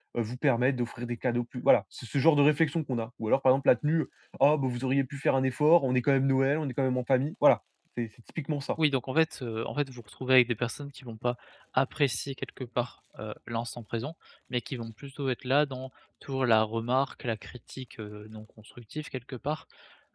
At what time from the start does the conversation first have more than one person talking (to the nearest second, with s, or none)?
none